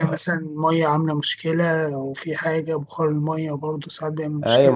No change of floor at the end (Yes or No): No